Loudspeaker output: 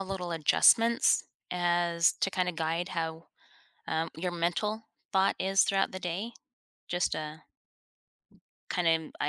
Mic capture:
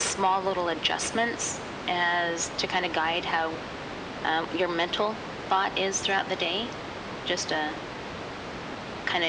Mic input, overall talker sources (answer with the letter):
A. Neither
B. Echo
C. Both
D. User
B